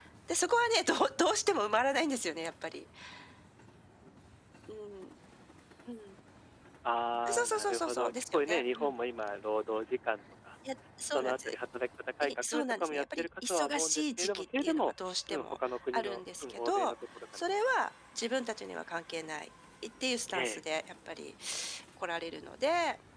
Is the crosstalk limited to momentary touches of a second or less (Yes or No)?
No